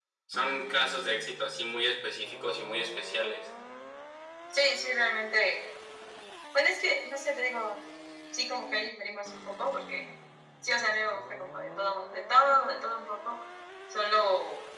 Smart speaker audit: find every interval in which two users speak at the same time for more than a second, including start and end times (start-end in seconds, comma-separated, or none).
none